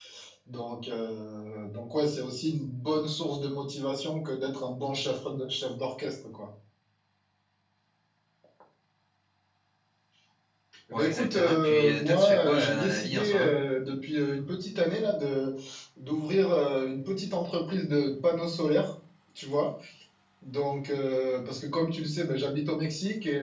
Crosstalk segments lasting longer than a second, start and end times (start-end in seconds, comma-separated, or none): 10.9-13.5